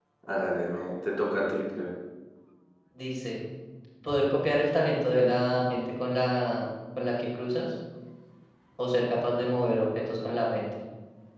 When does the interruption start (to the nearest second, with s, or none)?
none